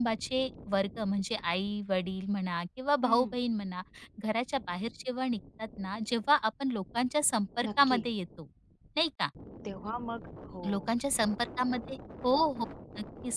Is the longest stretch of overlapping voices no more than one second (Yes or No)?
Yes